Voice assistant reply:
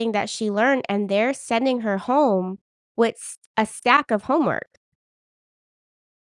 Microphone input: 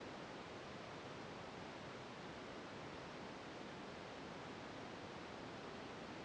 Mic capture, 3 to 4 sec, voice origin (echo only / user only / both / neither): neither